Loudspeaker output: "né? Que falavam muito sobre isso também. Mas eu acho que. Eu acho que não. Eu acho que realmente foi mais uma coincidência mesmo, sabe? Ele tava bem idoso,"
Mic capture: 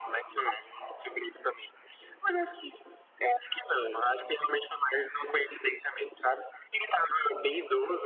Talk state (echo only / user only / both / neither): echo only